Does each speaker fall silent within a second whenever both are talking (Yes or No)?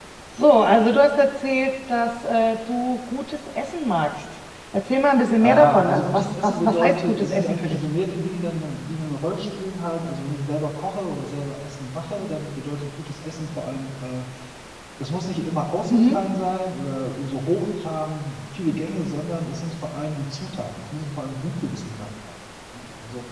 No